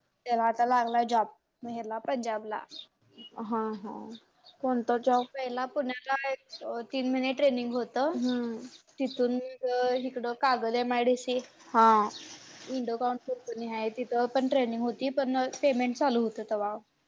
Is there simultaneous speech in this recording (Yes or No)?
No